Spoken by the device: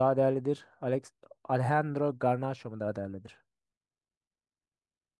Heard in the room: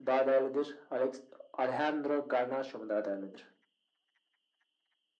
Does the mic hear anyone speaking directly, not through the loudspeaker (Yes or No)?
No